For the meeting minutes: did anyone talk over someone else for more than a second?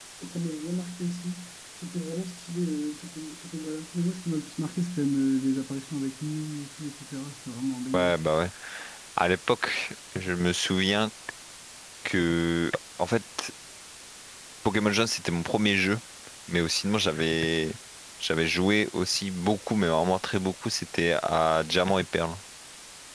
No

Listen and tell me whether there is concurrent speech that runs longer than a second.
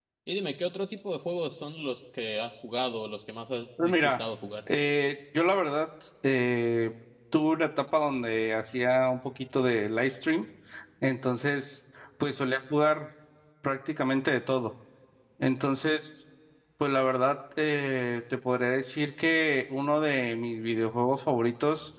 No

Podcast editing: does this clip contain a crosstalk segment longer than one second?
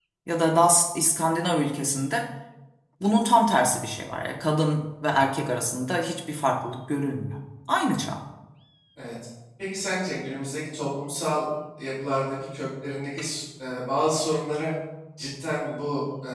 No

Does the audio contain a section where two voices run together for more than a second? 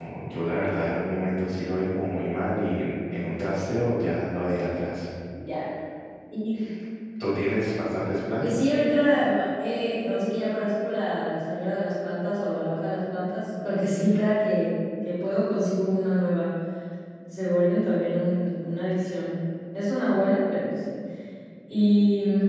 No

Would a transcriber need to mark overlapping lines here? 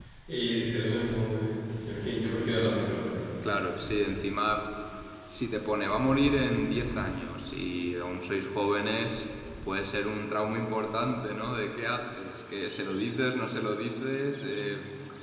No

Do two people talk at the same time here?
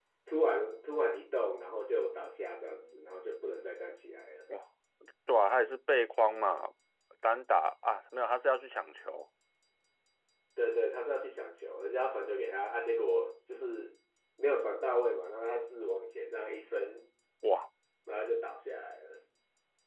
No

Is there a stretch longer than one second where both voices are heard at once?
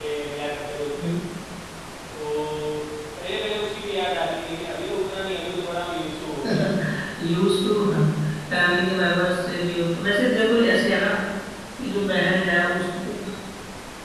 No

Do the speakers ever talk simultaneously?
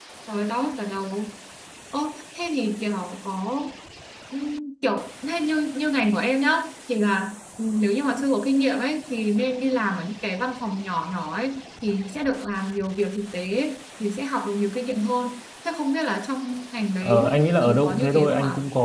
Yes, from 17.0 s

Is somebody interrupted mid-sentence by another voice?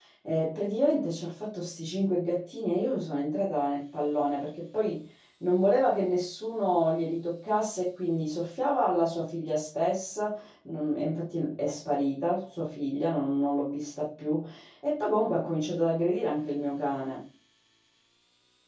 No

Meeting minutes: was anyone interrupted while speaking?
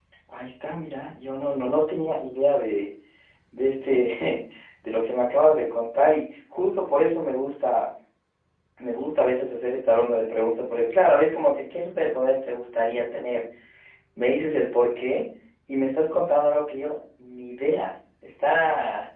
No

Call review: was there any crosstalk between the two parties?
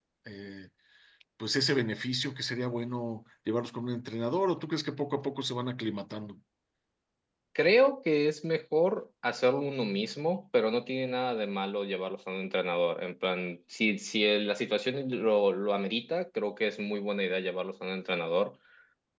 No

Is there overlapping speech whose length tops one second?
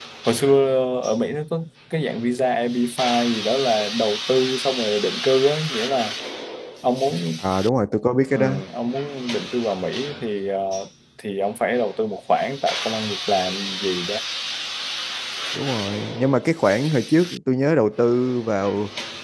No

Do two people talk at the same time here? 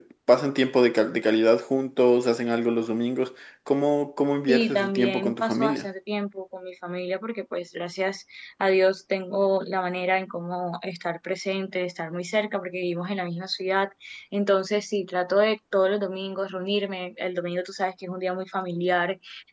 Yes, from 4.5 s

